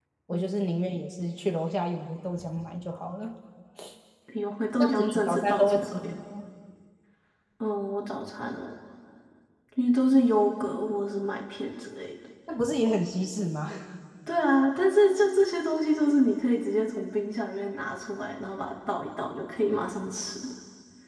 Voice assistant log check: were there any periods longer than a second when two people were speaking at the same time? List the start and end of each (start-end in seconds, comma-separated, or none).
4.8-6.1